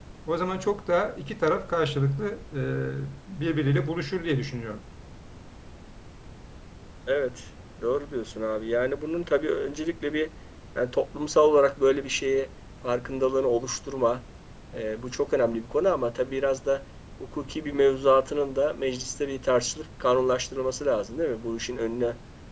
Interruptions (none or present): none